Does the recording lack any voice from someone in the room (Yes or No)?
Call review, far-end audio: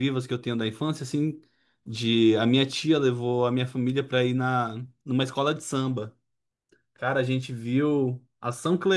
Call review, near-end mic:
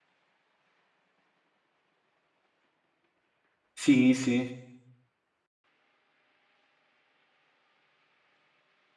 No